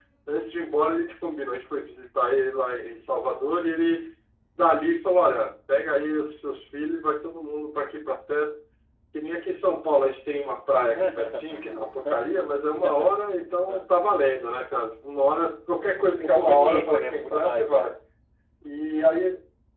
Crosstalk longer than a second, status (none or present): present